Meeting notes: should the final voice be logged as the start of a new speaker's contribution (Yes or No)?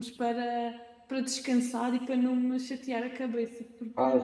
Yes